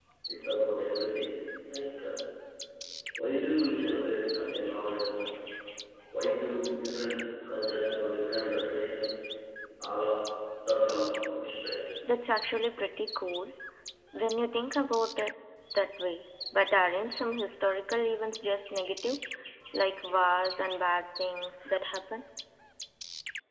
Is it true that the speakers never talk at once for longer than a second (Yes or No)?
Yes